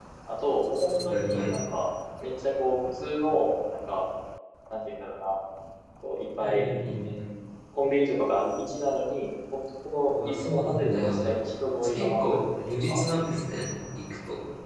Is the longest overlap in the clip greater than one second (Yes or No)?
Yes